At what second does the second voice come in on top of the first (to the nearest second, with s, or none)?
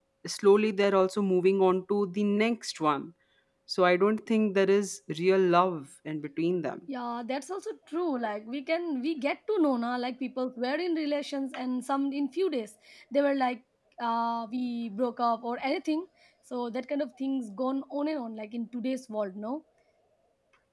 none